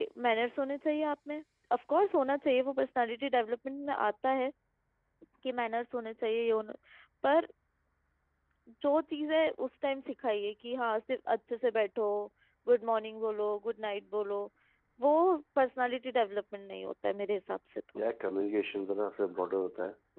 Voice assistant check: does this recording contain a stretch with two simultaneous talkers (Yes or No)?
No